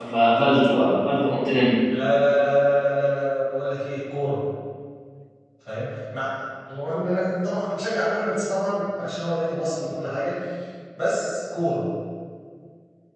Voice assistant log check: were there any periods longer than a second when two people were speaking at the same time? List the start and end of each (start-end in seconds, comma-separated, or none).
none